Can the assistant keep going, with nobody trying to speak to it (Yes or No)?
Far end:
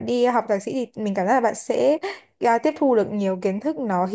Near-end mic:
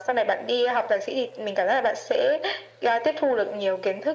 Yes